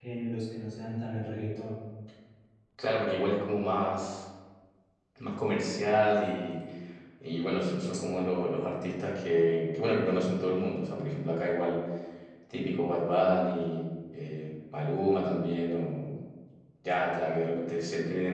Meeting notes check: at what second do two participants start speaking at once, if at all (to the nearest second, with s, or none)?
none